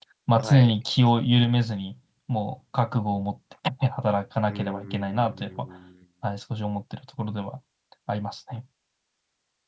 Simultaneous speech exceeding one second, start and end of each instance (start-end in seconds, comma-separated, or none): 4.4-5.7